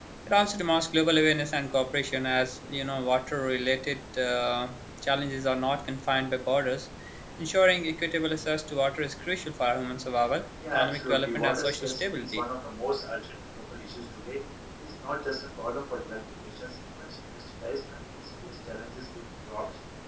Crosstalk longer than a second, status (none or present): present